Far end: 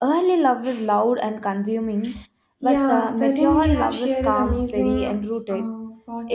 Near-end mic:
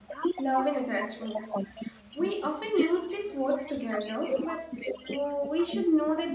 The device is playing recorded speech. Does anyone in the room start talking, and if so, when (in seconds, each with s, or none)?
0.4 s